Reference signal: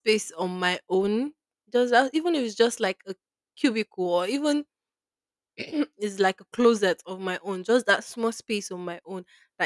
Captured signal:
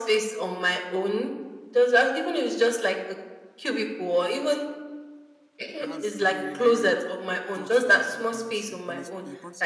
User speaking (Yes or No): Yes